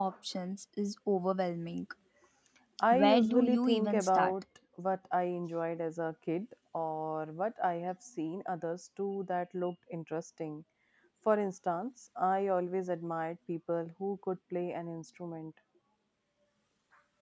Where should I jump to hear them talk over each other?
3 s

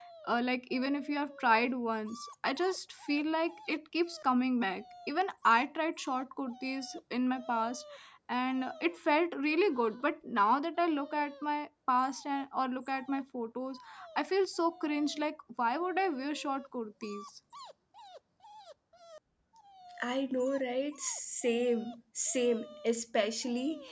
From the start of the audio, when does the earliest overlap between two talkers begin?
none

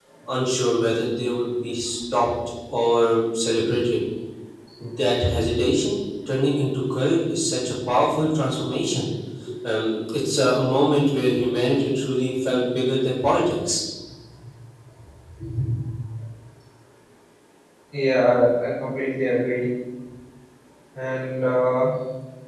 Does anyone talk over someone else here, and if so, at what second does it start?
none

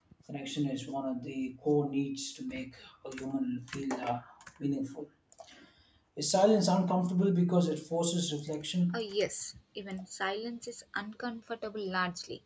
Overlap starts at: none

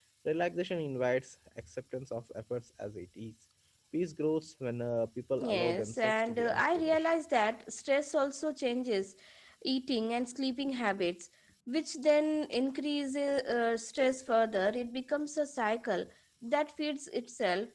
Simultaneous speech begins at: 5 s

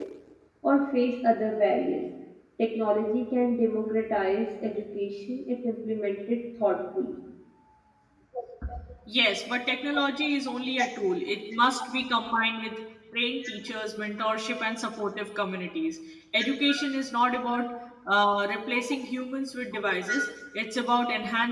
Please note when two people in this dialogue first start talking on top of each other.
none

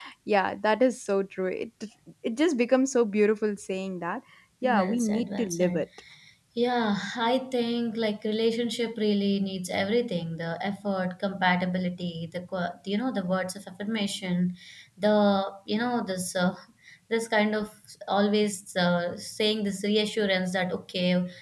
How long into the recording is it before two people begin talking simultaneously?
5 s

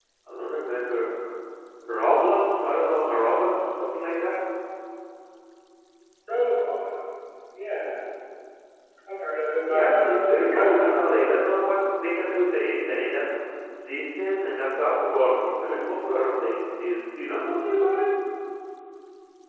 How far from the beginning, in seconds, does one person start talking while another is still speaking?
10 s

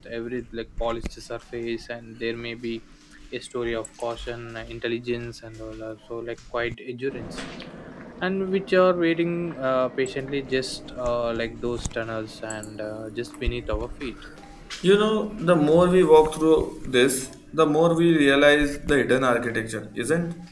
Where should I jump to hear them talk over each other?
none

